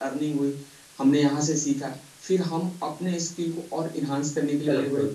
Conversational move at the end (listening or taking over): listening